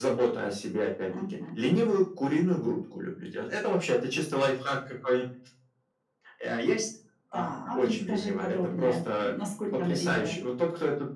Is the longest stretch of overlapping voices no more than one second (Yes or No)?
No